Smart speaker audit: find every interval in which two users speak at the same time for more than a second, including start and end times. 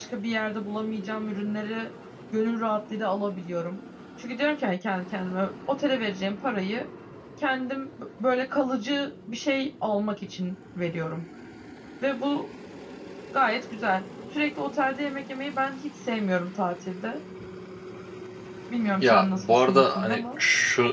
19.0-20.4

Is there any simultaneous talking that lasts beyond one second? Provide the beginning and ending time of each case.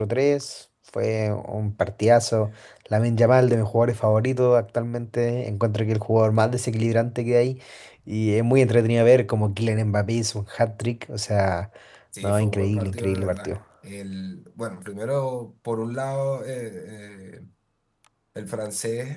12.2-13.5

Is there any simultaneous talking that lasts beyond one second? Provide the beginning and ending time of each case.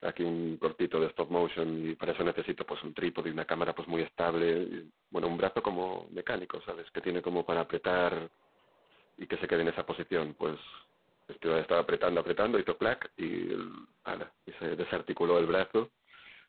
none

